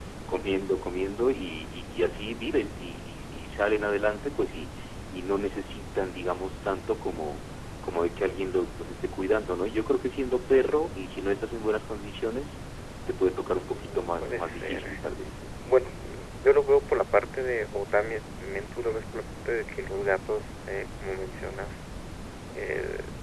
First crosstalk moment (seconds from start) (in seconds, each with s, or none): 13.7 s